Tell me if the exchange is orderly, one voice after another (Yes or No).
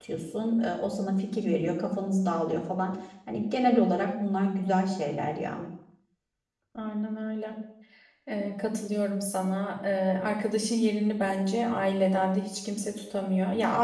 Yes